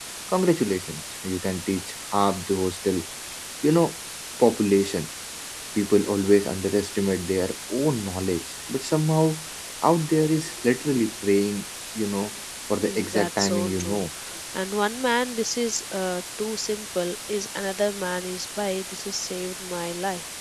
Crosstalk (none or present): present